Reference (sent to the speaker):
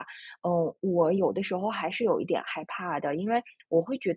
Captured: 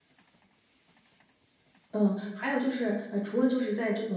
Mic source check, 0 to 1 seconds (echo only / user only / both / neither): neither